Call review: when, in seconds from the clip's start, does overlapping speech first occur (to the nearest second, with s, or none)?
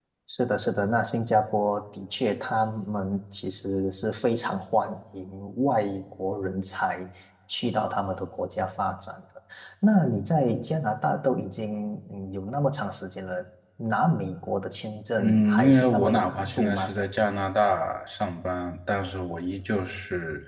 15 s